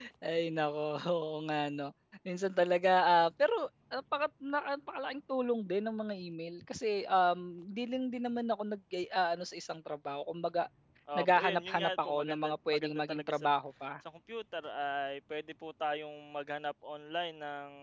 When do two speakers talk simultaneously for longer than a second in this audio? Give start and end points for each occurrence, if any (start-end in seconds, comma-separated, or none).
11.2-13.5